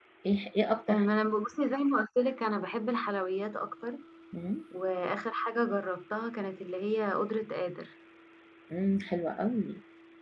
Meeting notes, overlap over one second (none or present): none